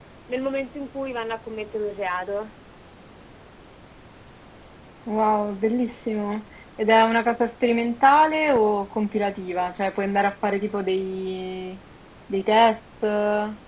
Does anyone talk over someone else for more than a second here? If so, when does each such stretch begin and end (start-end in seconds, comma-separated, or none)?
none